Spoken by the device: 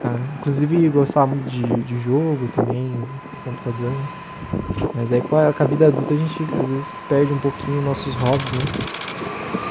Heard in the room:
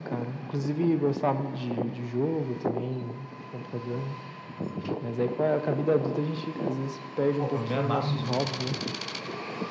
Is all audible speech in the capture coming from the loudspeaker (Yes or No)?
No